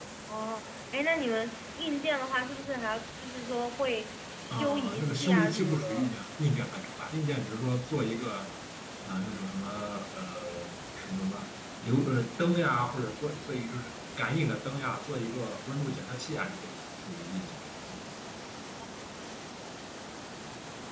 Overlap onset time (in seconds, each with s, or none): 4.5 s